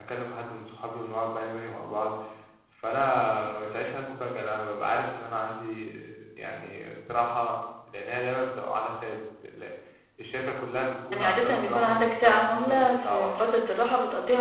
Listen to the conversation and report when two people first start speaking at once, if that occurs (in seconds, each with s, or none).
11.1 s